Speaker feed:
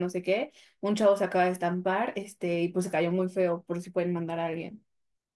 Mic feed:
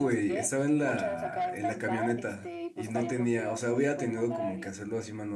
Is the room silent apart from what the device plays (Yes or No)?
No